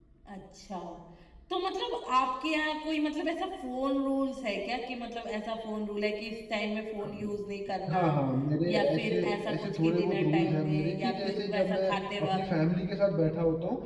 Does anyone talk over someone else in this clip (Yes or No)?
Yes